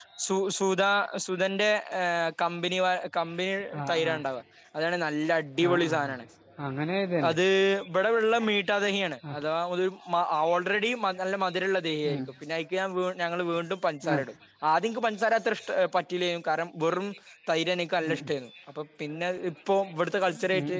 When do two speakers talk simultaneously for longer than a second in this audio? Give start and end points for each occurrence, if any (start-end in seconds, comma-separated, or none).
none